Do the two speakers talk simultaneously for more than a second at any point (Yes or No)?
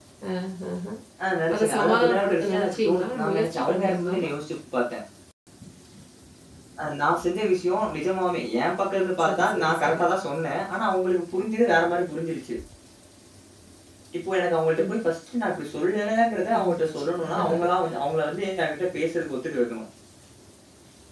Yes